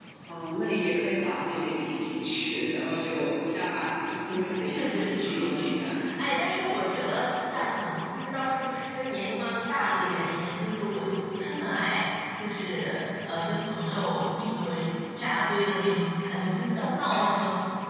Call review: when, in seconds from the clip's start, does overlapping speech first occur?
4.3 s

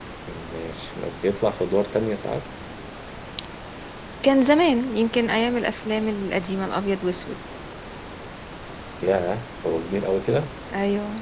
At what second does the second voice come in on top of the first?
none

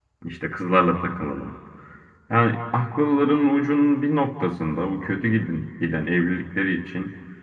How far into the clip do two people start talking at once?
none

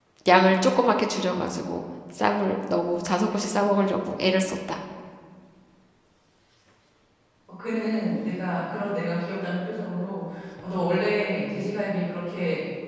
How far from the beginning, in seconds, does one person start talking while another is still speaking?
none

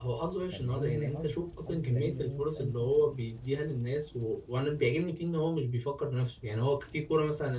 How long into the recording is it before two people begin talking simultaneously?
0.5 s

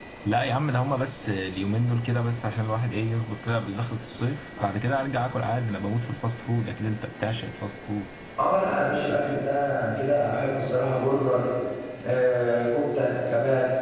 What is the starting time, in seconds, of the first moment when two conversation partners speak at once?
none

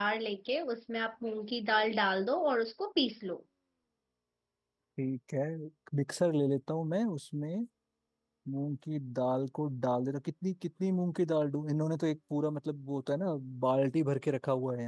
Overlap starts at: none

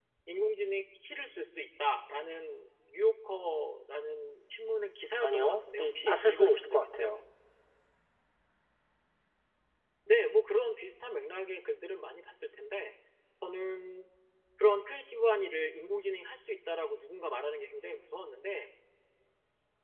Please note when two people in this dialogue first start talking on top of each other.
5.2 s

